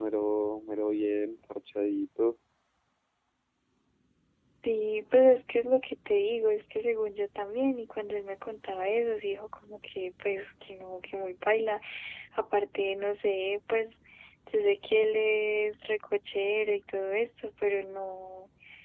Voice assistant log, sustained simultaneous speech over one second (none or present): none